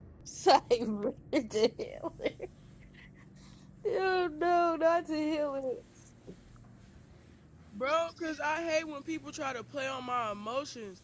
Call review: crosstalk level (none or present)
none